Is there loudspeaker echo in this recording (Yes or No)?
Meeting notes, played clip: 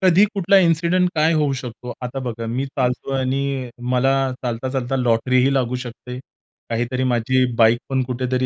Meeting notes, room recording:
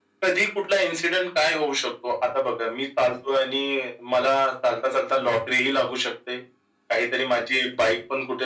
Yes